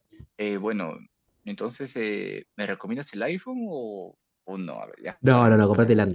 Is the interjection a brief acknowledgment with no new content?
No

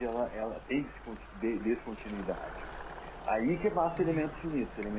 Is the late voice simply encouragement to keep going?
Yes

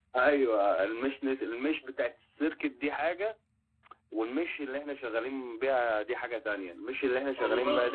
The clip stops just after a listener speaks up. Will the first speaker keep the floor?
Yes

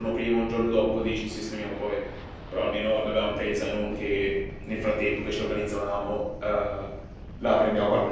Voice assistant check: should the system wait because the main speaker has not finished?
No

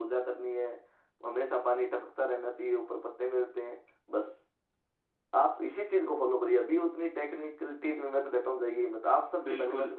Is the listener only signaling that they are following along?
No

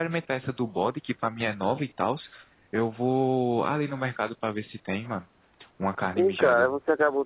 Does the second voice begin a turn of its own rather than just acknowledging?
Yes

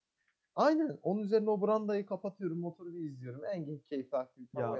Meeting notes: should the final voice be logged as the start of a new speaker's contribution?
Yes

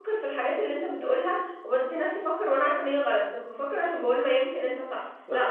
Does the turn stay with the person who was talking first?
Yes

